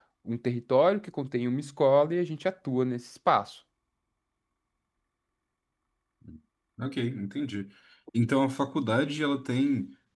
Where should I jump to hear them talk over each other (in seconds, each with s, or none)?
none